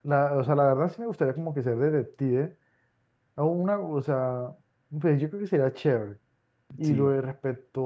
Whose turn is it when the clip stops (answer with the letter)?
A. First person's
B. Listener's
A